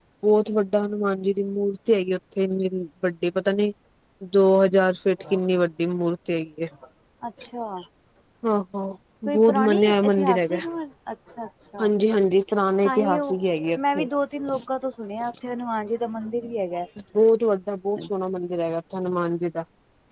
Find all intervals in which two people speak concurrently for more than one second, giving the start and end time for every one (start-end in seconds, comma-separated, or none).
9.3-10.6